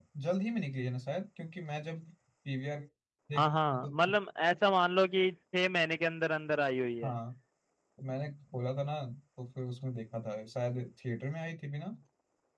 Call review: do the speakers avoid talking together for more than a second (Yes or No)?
Yes